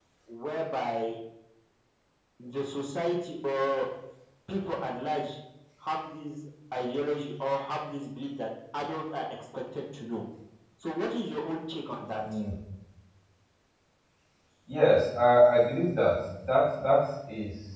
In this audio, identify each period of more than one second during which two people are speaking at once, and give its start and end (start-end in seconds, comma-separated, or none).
none